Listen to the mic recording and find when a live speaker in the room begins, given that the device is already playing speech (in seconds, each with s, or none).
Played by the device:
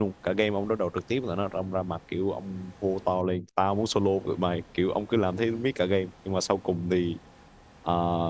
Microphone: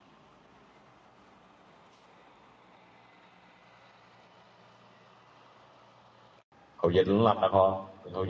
6.7 s